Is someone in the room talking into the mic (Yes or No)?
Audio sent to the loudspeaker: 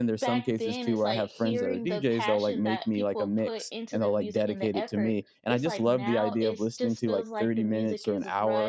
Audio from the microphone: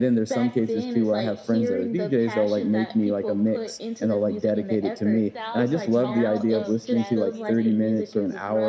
Yes